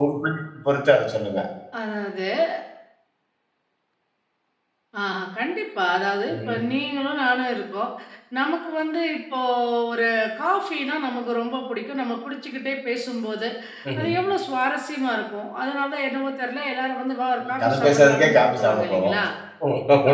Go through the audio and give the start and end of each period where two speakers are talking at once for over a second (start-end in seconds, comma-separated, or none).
17.5-19.1